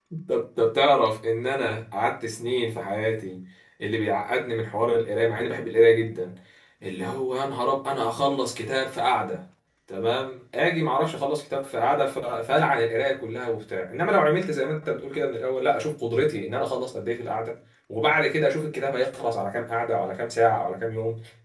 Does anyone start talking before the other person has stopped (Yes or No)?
No